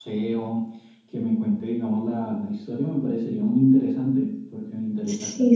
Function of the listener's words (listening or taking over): taking over